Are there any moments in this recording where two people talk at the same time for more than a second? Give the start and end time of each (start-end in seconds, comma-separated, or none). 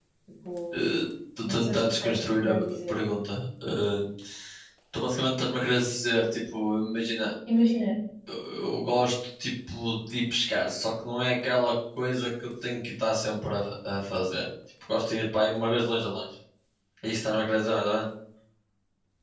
1.4-3.0